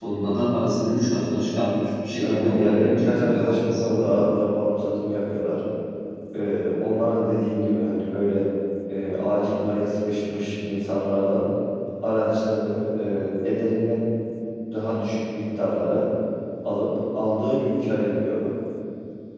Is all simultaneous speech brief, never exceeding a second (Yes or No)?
No